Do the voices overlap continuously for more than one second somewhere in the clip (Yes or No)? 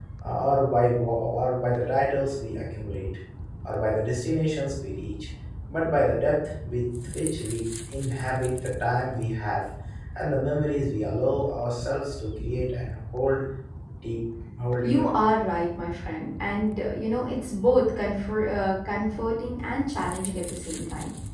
No